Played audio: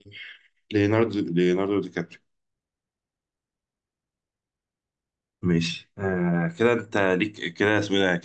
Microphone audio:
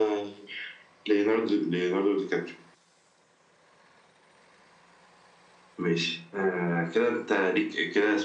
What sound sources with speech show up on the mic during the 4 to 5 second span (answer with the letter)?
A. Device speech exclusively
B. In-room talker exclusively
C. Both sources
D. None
D